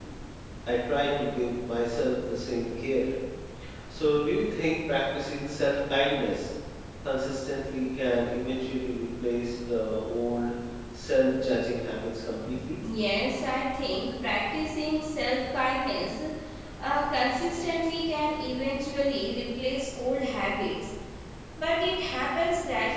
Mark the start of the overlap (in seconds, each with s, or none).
none